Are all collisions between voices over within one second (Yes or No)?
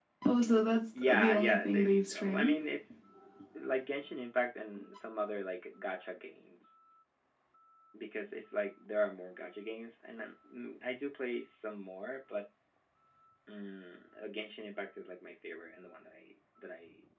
No